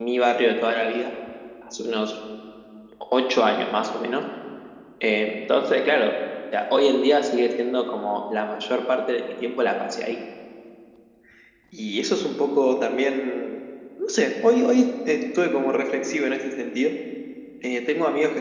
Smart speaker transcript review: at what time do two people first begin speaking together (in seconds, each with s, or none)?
none